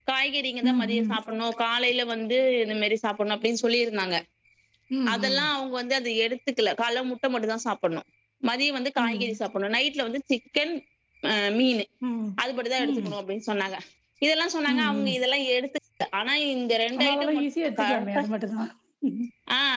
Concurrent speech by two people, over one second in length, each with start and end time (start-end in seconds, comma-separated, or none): 17.0-18.2